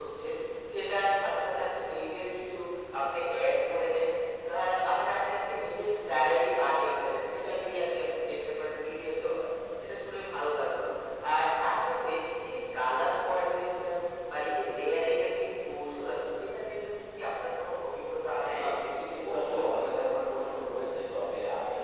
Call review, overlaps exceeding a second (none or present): present